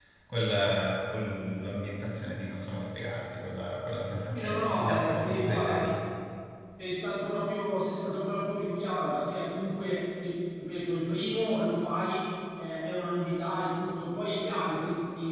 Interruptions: present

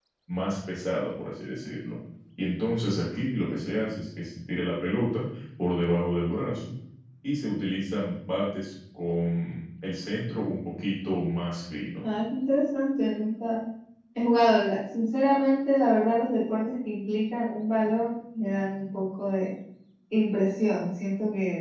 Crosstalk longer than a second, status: none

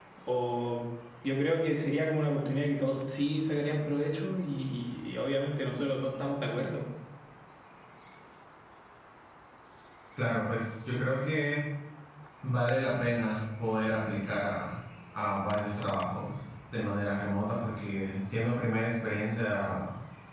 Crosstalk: none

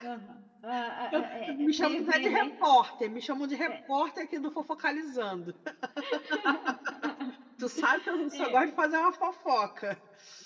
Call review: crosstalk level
present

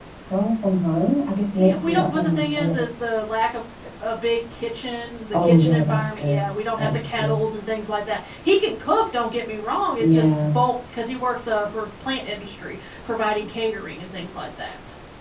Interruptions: present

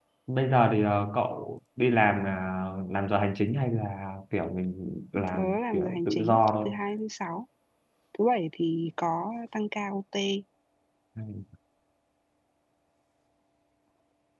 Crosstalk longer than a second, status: present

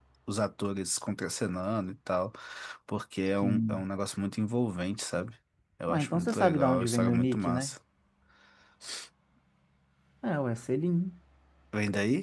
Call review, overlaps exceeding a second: present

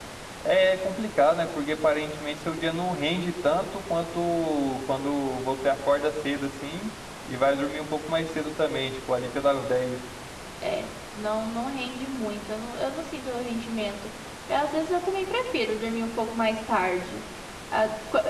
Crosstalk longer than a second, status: none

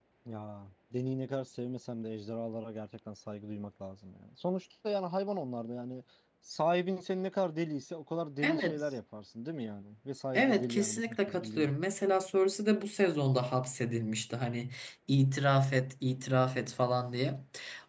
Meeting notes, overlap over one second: present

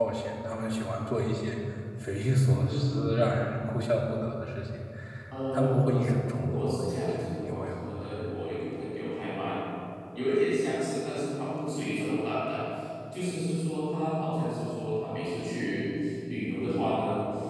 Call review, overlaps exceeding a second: present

